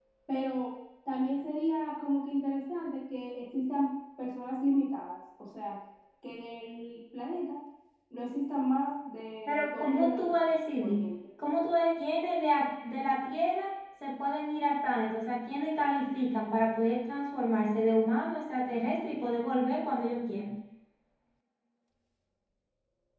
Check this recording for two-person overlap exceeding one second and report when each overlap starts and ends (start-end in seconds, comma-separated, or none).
9.5-11.1